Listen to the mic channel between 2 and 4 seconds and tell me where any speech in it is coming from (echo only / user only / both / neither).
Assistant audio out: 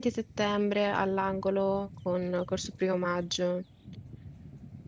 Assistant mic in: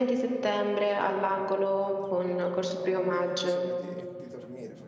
both